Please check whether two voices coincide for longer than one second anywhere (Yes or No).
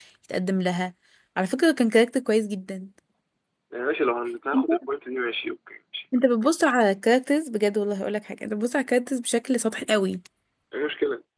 No